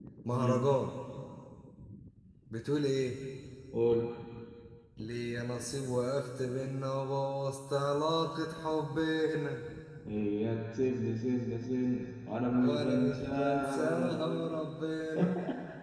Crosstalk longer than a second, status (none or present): present